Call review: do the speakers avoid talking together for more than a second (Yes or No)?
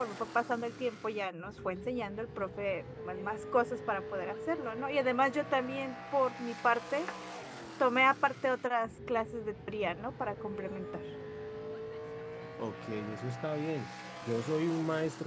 Yes